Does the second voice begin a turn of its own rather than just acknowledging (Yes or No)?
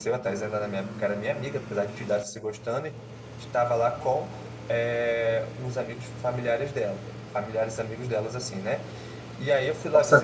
Yes